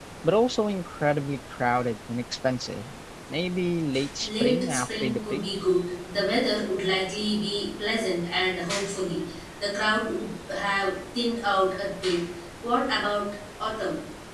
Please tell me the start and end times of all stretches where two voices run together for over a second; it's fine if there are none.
4.2-5.4

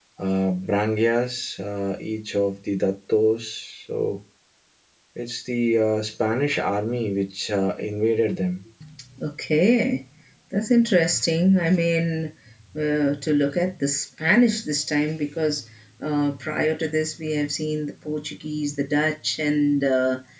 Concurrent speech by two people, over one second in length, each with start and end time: none

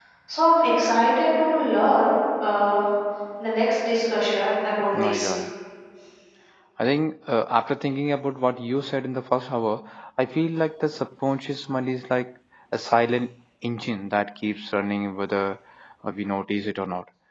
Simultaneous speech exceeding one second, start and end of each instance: none

